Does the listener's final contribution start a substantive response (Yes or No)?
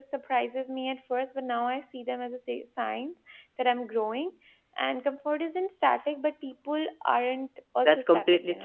Yes